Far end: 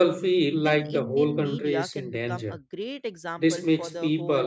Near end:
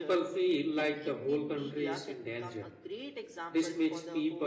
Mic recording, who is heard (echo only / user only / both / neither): echo only